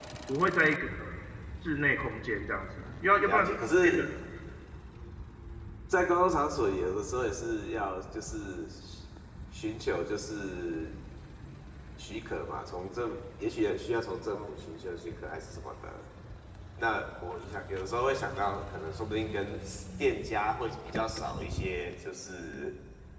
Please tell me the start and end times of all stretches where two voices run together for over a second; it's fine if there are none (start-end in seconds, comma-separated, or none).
none